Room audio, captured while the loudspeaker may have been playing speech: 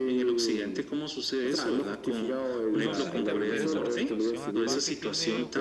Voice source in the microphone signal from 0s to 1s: echo only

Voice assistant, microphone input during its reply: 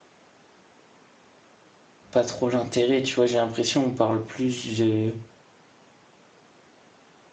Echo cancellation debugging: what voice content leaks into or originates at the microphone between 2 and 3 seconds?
user only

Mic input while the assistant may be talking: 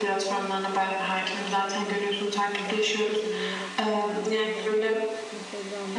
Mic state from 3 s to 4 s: both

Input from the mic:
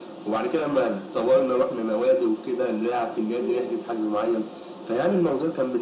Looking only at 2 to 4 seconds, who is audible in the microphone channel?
echo only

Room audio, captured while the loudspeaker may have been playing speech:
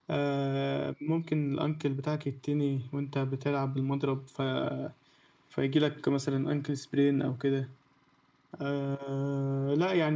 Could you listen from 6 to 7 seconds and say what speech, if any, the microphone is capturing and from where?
echo only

